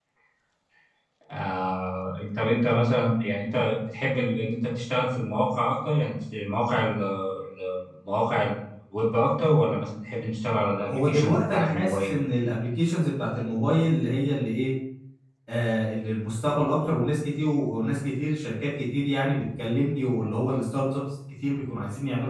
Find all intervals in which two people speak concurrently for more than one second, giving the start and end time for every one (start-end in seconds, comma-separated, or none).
10.9-12.1